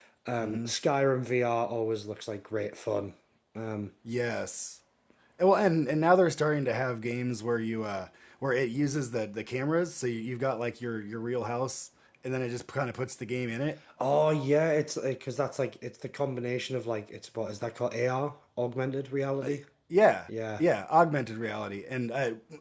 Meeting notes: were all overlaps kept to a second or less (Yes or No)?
Yes